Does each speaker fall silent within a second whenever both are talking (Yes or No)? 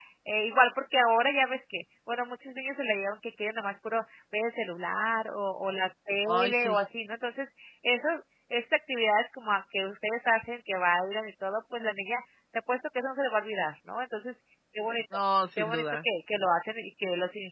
Yes